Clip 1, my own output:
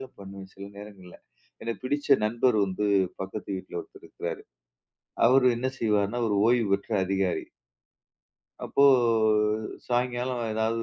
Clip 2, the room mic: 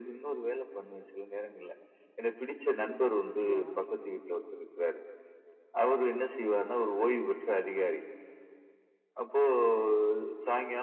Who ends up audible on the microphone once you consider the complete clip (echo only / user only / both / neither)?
both